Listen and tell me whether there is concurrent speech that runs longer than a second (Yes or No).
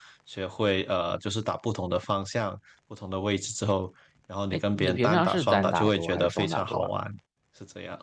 Yes